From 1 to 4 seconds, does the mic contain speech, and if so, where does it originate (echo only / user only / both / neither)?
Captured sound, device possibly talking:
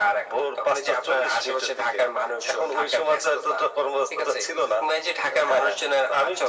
echo only